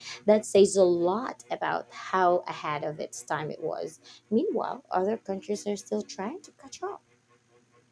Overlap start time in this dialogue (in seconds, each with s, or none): none